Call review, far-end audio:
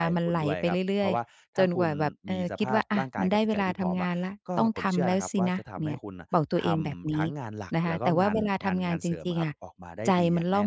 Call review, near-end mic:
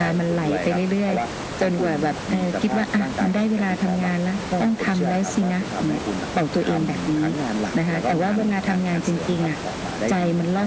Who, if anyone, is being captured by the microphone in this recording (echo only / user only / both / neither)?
echo only